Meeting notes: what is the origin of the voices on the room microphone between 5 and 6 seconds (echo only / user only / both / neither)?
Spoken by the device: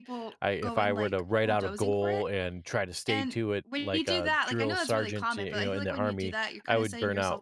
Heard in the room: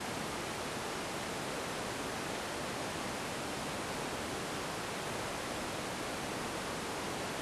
neither